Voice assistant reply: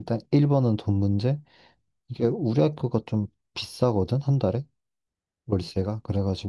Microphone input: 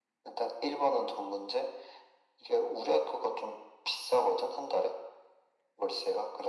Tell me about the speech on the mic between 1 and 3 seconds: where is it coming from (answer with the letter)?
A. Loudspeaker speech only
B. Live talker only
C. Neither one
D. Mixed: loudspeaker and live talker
A